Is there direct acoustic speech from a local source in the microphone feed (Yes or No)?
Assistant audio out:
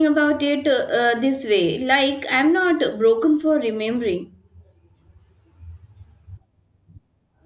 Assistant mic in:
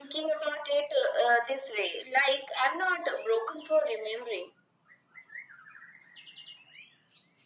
No